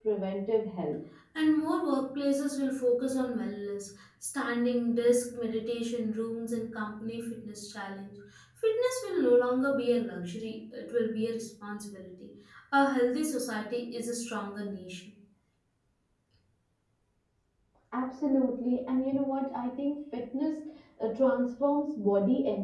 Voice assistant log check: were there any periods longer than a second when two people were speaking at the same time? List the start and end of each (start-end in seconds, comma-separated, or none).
none